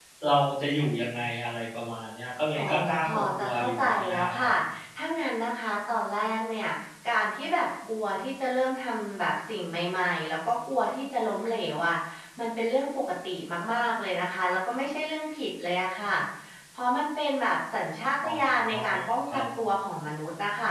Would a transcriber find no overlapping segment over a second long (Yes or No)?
No